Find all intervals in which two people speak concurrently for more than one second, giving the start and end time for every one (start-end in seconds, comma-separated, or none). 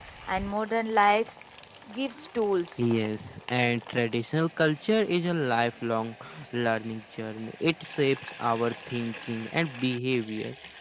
none